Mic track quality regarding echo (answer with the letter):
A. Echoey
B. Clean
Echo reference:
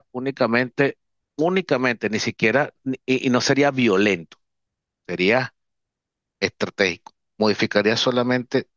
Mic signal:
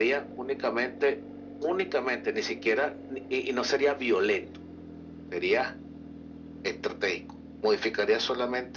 A